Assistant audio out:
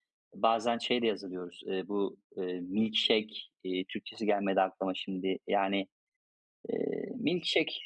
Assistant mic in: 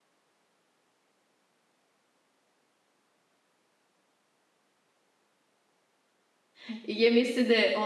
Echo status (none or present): none